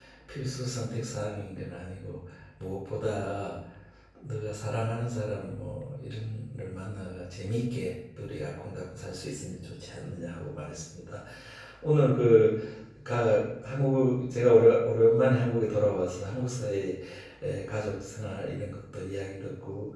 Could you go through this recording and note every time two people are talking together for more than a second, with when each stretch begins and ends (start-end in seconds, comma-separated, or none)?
none